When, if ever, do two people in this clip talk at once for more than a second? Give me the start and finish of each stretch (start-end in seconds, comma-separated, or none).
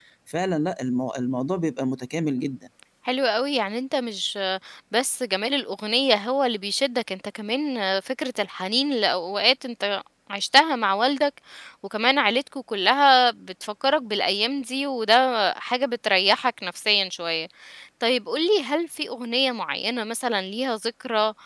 none